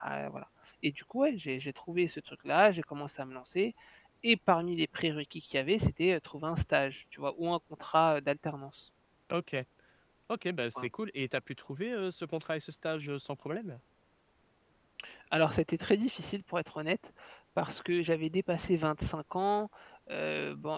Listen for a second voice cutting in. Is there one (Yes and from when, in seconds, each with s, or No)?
No